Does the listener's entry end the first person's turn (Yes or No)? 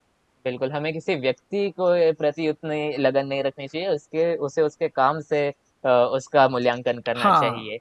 Yes